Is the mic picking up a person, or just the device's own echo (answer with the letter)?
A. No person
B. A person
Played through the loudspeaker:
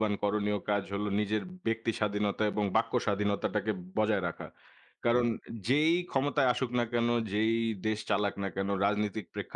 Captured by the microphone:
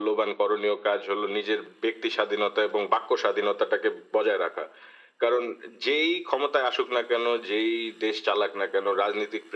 A